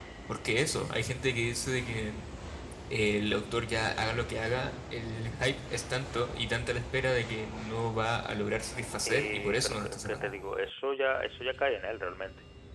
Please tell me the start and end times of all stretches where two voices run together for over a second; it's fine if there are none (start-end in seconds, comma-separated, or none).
9.1-10.3